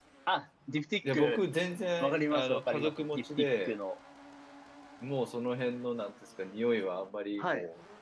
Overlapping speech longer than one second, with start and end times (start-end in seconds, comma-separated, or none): 2.0-3.7